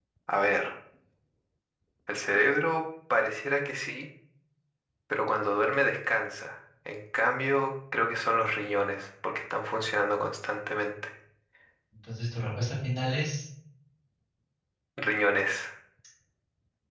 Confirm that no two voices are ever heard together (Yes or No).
Yes